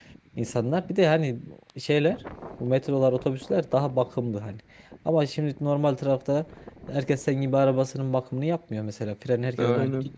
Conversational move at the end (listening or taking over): listening